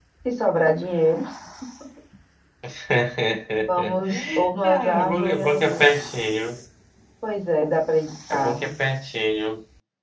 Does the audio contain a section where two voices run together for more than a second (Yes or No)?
Yes